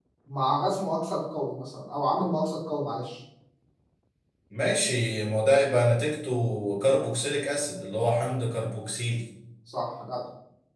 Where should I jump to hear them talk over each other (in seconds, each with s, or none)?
none